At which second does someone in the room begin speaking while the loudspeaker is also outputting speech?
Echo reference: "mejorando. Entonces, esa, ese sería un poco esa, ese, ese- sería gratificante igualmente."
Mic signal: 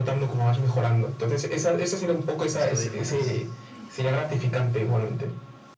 2.5 s

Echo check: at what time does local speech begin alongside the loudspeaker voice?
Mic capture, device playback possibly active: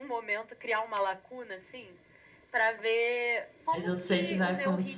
3.7 s

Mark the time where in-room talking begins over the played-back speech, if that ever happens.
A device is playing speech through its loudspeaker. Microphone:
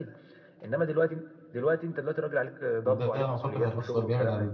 2.8 s

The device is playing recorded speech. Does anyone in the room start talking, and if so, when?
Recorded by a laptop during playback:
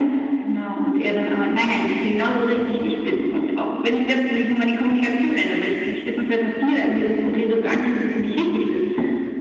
none

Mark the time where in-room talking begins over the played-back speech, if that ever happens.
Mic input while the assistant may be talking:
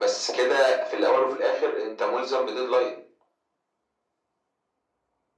none

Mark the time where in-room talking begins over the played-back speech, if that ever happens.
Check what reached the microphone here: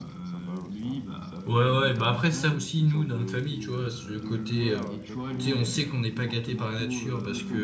1.5 s

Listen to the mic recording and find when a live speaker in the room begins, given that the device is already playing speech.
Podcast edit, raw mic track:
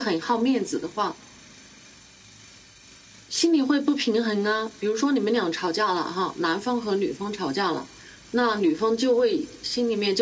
none

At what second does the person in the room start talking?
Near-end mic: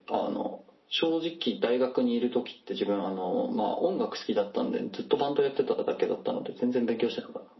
none

